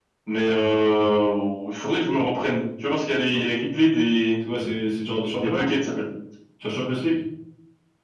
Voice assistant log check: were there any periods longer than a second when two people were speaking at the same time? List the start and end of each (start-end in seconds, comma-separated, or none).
none